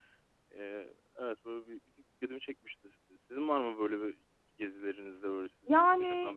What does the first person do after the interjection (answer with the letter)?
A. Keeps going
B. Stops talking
B